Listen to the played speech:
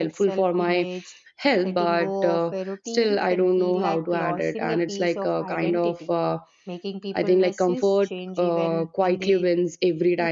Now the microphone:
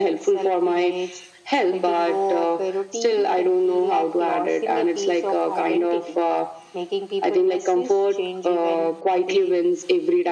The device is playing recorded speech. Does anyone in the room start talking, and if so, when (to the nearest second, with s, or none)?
none